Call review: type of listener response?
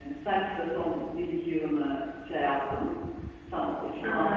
listening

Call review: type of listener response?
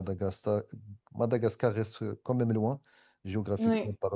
listening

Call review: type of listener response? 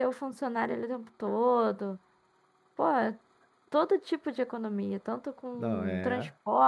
listening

